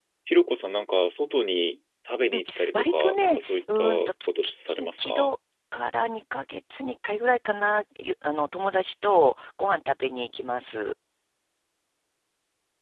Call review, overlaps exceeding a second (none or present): present